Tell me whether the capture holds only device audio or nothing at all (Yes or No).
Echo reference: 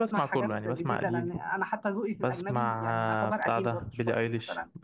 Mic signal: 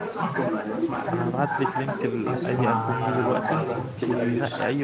No